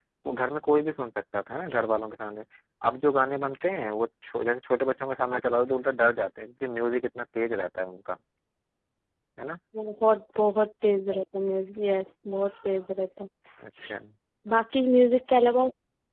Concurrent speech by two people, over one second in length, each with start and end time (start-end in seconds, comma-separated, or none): none